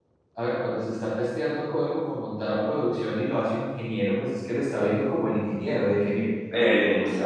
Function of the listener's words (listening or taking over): listening